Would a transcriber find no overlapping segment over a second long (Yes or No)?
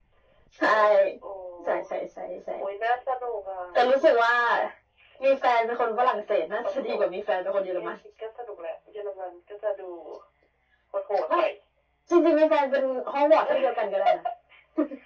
Yes